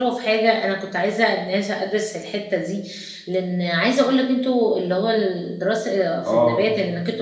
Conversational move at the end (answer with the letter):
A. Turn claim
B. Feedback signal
B